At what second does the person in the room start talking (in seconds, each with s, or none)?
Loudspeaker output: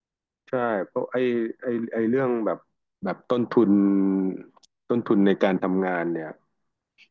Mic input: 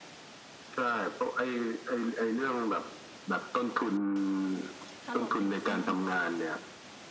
5.0 s